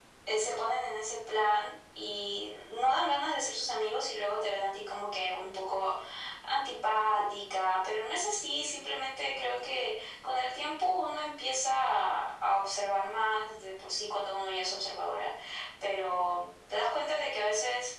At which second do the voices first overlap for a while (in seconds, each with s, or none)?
none